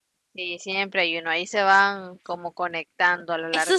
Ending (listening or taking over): taking over